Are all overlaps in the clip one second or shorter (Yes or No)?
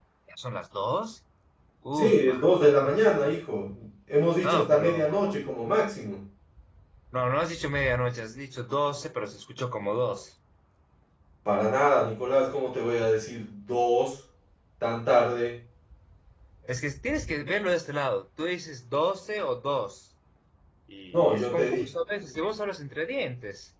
No